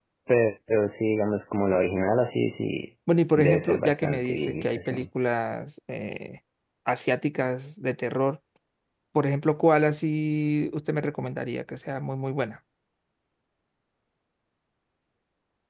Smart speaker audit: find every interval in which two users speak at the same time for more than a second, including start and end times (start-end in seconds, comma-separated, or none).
3.4-5.0